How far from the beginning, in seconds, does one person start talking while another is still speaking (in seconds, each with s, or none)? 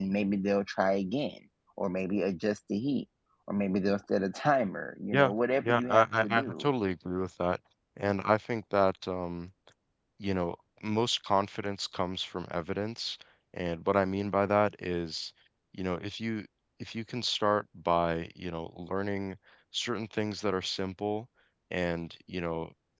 5.1 s